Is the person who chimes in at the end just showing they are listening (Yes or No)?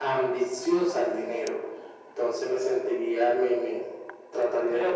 No